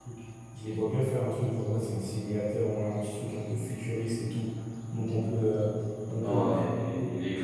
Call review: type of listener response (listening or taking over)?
taking over